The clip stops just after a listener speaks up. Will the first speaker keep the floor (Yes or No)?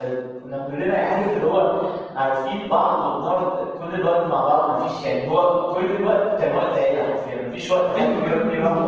No